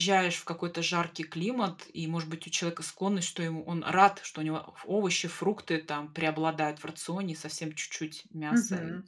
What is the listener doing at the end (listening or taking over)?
taking over